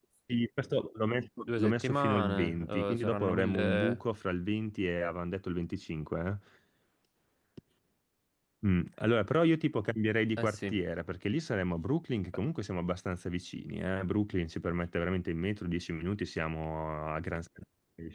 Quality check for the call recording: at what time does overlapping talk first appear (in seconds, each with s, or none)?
1.5 s